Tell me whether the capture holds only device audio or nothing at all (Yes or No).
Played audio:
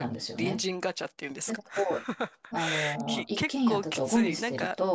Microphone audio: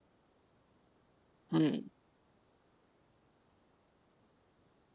No